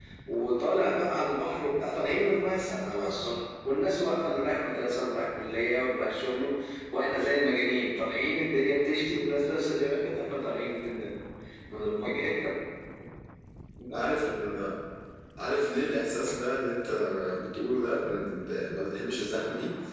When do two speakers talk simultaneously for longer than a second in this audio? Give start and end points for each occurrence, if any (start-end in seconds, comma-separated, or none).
none